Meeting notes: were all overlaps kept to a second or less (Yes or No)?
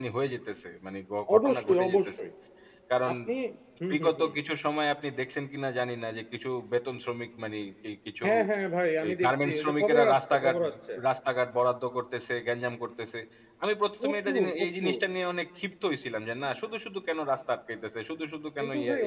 No